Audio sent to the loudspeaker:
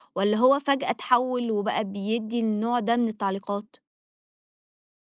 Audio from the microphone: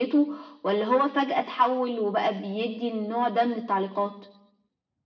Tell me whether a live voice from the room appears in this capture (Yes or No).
No